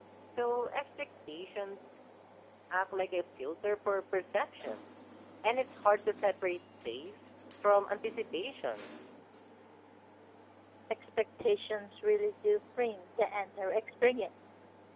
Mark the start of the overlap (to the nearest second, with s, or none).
none